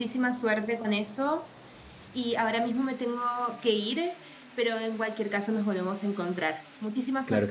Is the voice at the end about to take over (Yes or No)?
Yes